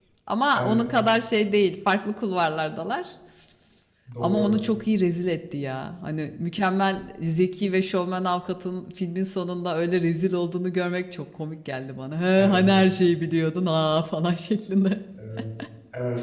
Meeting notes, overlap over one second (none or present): none